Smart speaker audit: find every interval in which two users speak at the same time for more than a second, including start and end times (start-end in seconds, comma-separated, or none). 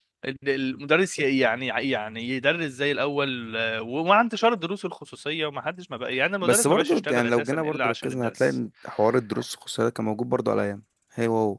6.4-8.5